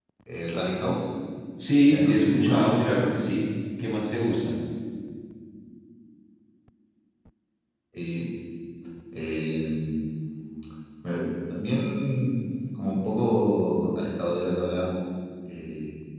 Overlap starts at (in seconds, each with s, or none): 1.9 s